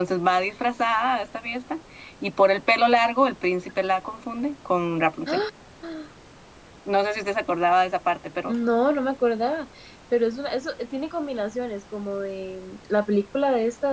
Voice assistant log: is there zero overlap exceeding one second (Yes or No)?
Yes